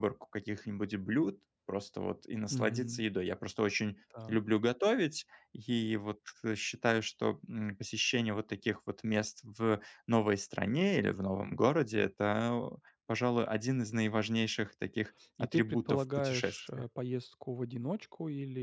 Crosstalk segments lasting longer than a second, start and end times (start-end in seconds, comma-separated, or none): 15.4-16.8